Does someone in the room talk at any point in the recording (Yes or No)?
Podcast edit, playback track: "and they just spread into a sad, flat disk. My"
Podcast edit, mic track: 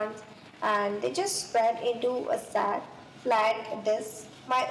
No